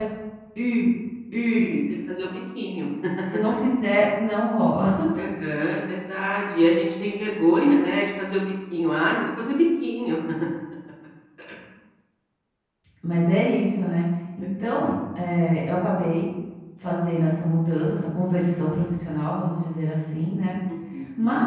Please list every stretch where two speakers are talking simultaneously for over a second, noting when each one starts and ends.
none

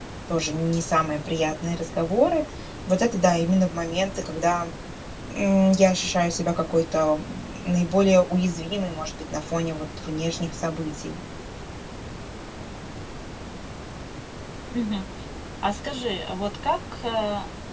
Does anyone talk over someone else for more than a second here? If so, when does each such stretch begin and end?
none

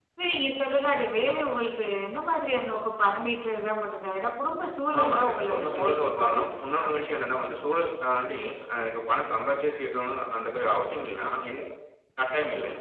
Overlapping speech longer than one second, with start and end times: 5.0-6.8

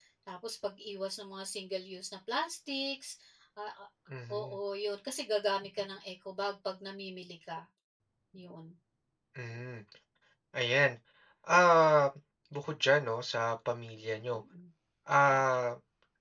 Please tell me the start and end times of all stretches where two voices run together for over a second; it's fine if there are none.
none

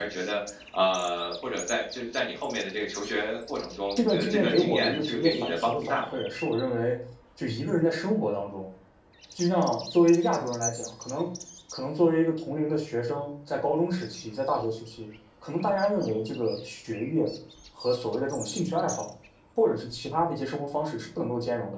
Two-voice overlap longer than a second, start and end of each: 4.0-6.2

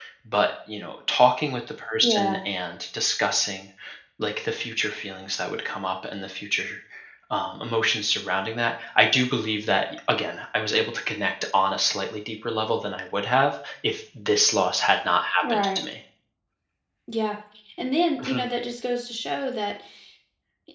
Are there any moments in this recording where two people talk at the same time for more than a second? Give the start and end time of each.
none

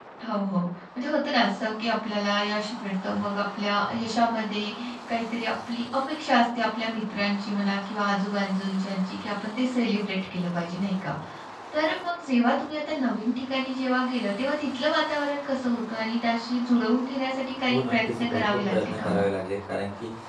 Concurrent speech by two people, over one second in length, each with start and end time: 17.7-19.2

